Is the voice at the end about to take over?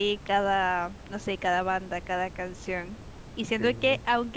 No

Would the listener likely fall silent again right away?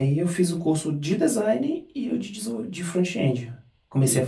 No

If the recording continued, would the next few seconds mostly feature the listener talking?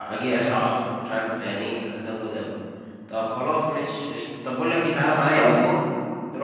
No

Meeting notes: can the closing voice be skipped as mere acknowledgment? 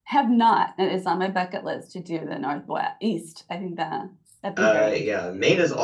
No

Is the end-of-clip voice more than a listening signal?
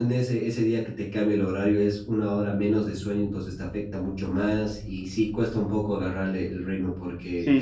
Yes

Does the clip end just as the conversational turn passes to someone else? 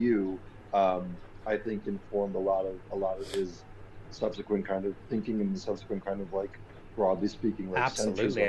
Yes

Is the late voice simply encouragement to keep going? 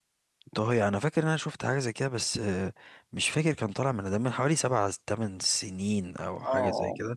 No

